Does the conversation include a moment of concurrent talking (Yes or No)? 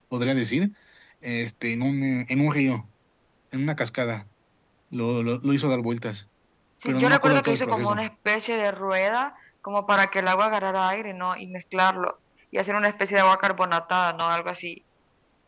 Yes